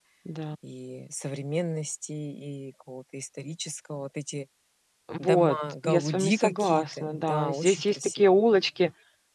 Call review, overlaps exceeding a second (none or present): present